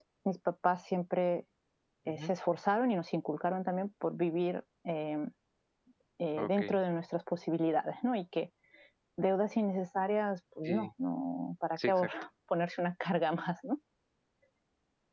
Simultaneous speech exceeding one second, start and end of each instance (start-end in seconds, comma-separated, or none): none